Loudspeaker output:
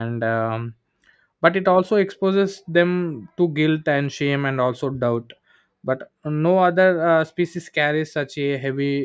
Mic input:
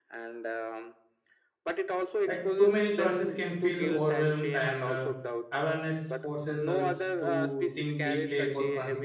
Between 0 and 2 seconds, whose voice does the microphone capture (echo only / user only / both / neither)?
echo only